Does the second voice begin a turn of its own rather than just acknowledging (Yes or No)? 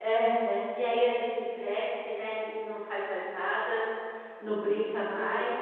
No